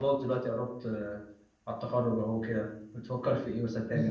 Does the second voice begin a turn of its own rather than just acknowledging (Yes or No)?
Yes